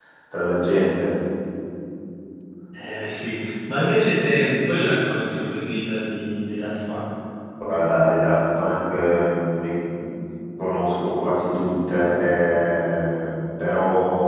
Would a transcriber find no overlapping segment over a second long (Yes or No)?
Yes